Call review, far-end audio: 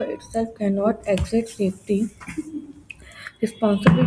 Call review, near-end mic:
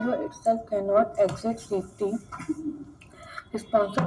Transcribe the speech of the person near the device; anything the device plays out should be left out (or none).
none